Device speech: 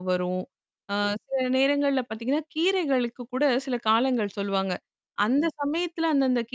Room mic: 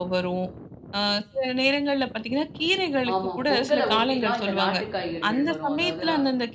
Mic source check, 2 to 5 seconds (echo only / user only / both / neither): both